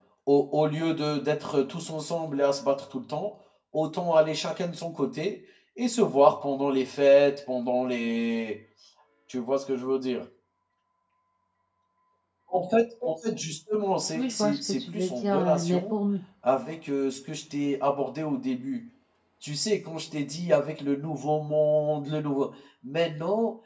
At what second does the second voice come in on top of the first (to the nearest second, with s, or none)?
14 s